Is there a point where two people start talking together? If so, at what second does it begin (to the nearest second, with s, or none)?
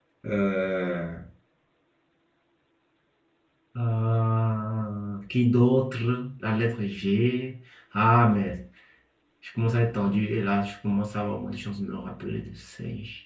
none